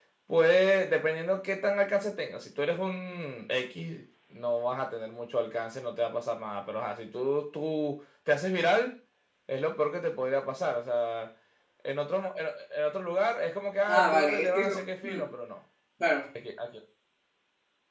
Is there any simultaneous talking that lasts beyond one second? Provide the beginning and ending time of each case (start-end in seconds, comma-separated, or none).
13.9-15.2